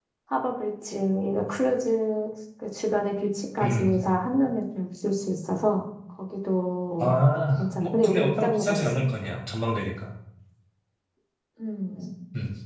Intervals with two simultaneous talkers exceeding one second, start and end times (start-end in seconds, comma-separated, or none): 7.5-8.9